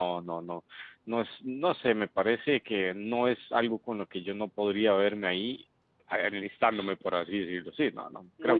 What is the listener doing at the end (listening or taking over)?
listening